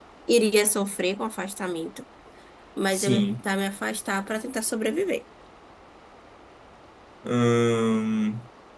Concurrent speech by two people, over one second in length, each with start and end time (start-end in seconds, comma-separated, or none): none